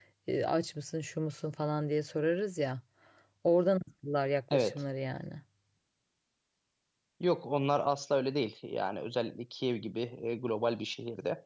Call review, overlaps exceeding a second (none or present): none